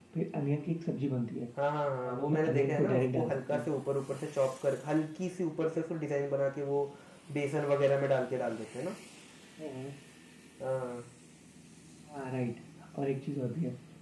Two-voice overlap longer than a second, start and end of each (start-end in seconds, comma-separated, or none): 2.1-3.6